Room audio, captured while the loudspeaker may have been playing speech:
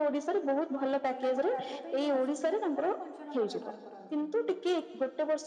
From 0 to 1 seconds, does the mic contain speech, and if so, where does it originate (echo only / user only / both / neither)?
echo only